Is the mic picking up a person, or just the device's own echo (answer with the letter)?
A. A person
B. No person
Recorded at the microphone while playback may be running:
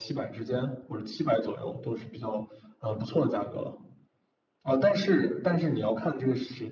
B